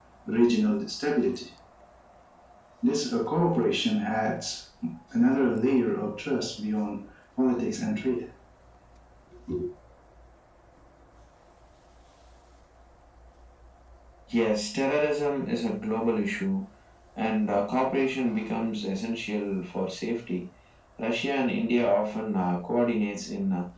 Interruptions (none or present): none